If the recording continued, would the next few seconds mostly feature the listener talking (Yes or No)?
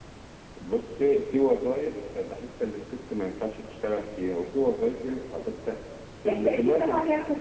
Yes